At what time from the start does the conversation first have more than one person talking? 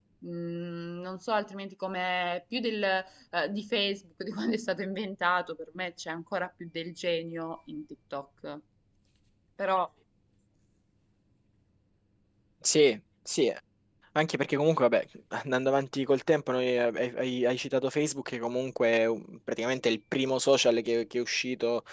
none

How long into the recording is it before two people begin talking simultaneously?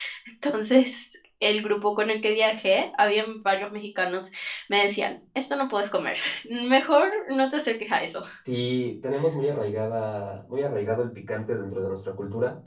none

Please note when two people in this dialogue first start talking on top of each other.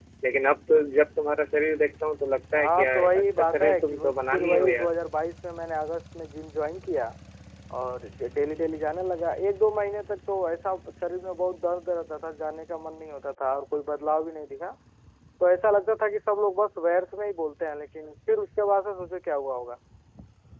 2.5 s

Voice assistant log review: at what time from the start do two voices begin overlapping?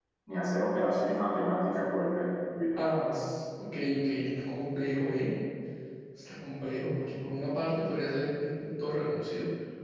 none

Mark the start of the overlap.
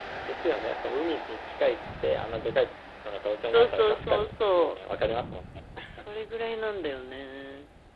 3.5 s

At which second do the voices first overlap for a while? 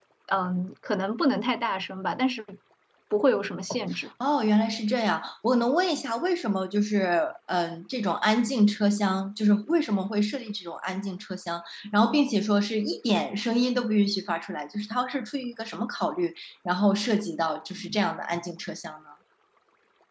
none

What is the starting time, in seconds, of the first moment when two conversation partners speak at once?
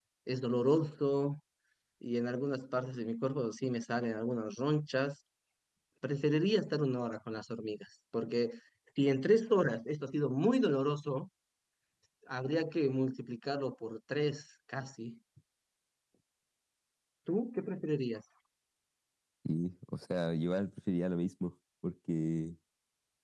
none

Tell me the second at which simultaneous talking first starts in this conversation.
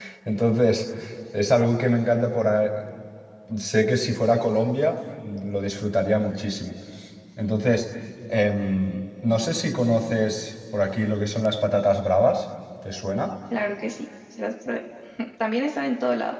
none

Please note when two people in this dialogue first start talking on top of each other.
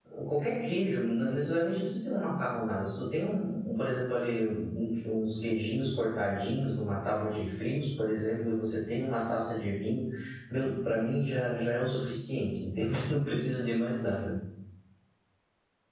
none

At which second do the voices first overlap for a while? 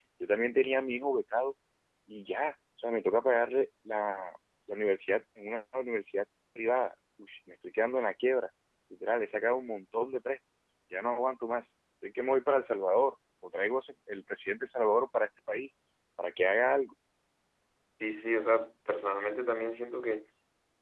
none

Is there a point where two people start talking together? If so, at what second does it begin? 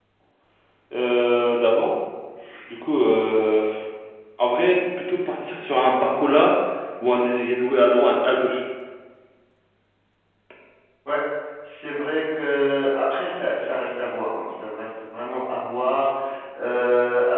none

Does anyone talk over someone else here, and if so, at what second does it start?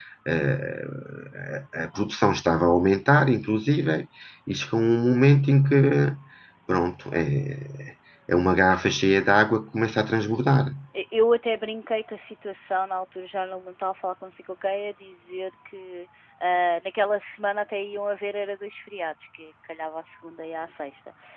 none

